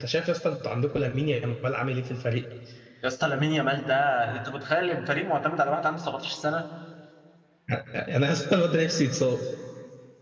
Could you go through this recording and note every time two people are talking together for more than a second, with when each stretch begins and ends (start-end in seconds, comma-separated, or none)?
none